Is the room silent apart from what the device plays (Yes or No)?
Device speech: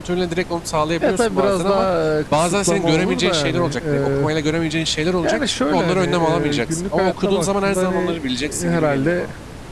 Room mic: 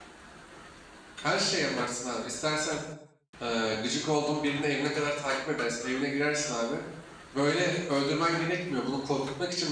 No